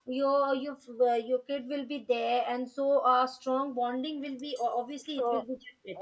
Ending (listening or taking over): taking over